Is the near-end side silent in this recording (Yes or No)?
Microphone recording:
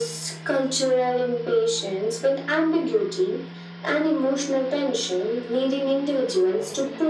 Yes